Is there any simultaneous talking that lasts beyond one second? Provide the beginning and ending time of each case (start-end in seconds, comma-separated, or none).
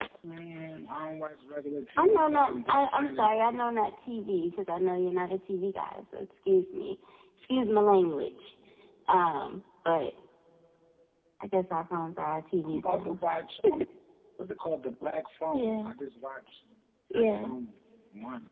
2.0-3.3